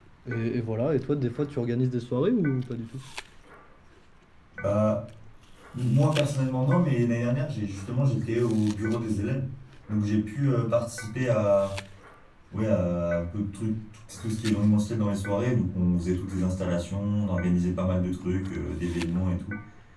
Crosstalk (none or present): none